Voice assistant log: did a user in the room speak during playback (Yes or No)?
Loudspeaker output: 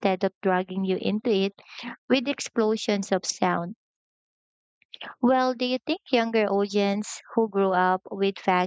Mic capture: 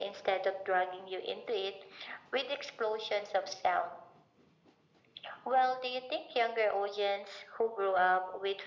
No